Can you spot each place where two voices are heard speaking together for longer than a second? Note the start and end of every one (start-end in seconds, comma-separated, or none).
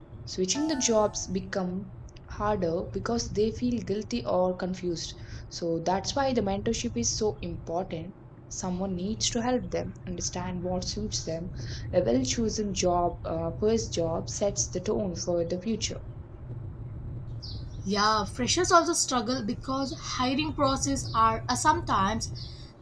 none